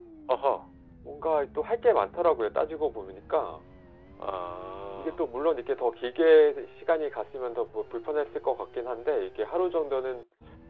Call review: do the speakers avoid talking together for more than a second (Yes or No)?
Yes